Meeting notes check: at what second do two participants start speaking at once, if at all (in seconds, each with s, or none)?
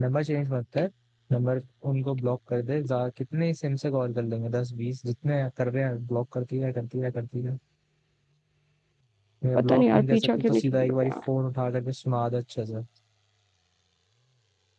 9.6 s